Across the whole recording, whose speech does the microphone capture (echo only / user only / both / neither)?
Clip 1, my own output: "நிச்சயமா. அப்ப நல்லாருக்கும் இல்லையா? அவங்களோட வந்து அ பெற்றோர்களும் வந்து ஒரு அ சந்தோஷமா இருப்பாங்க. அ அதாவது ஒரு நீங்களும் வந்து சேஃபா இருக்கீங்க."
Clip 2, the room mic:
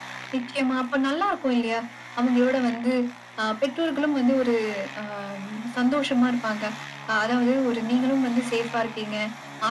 echo only